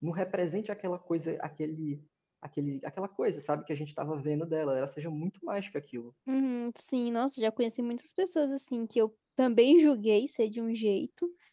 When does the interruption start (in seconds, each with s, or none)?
none